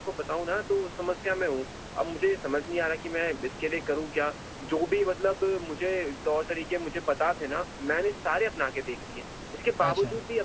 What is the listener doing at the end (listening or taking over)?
listening